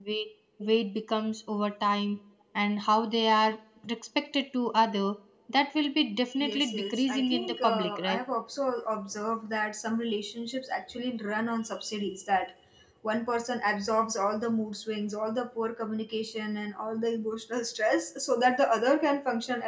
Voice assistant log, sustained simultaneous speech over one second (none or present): present